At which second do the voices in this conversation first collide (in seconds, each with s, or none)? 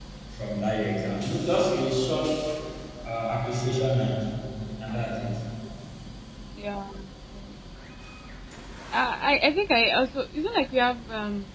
none